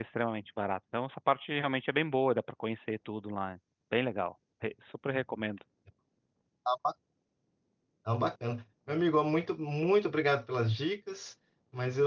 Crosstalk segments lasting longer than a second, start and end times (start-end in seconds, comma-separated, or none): none